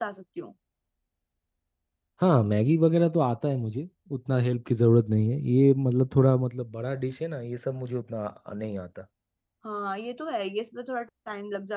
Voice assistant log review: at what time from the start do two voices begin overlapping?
none

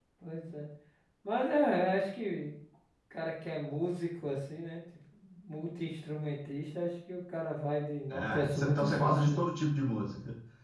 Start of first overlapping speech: 8.1 s

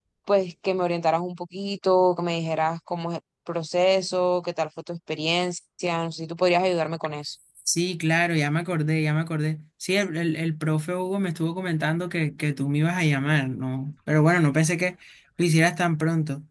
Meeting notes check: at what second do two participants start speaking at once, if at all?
none

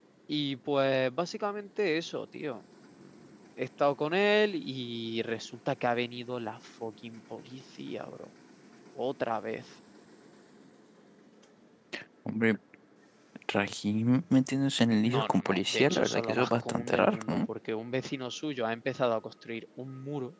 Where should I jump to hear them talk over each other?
15.0 s

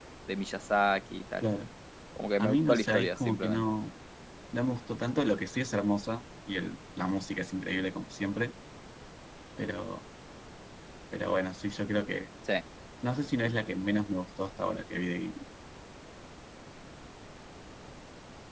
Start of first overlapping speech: 2.4 s

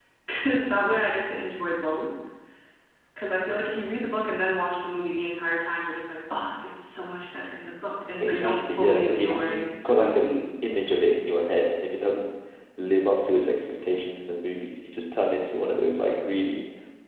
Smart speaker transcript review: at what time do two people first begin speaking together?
8.2 s

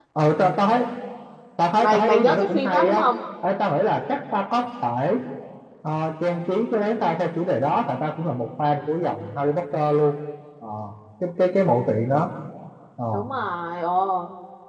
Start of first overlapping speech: 1.8 s

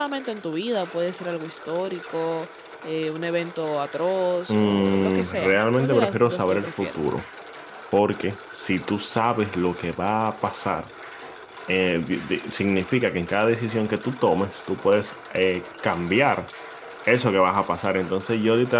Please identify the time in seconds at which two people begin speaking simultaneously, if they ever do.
4.5 s

